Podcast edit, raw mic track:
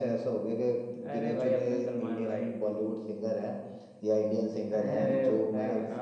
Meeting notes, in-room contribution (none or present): none